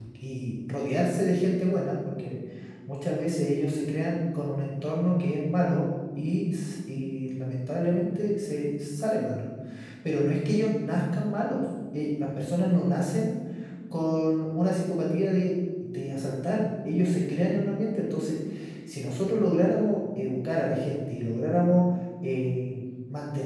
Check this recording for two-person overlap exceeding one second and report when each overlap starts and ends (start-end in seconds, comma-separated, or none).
none